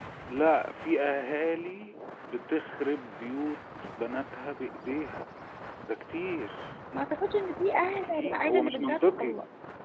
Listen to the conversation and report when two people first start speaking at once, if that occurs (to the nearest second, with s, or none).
8 s